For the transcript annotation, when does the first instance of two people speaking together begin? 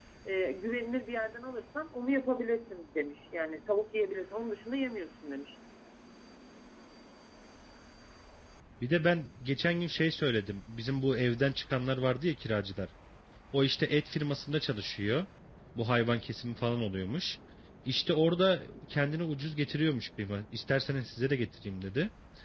none

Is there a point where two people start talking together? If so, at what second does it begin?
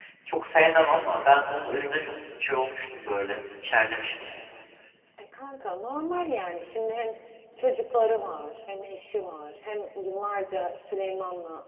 none

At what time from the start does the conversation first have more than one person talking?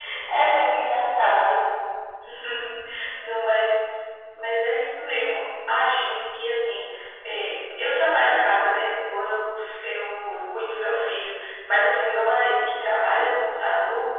none

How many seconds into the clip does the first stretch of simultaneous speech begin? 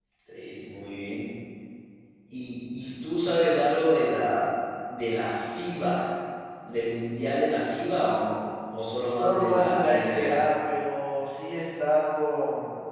9.1 s

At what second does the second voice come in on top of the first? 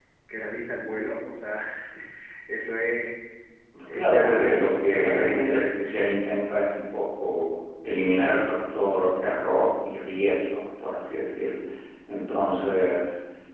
3.9 s

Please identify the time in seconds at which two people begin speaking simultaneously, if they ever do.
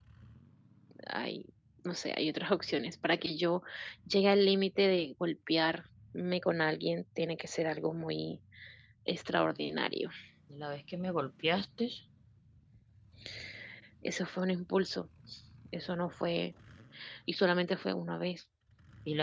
none

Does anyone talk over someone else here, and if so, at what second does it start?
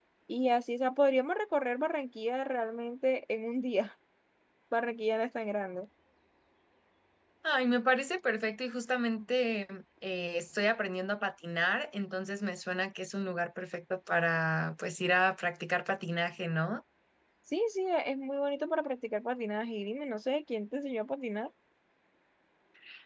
none

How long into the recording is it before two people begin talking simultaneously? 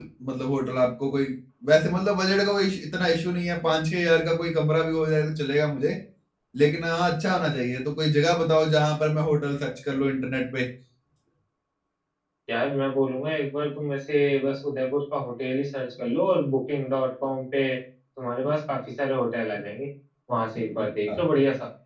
none

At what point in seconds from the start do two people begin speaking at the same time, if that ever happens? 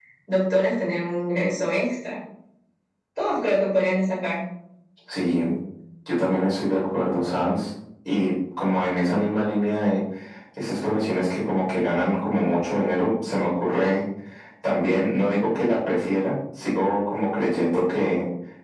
none

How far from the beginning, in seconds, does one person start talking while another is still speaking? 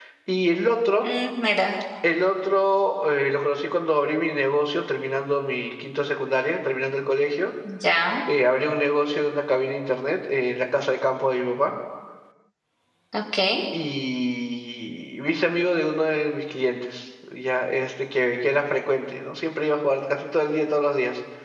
none

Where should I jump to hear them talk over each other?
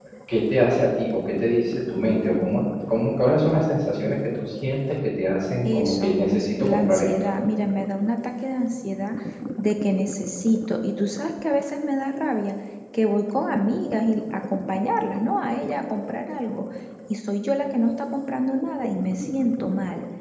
5.7 s

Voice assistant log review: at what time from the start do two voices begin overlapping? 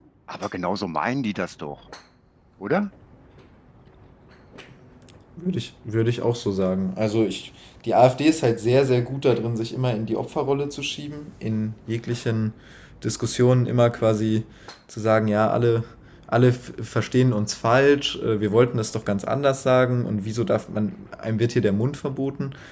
none

